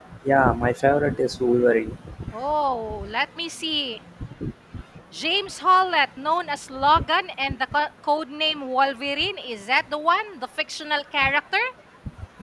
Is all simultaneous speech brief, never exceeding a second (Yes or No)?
Yes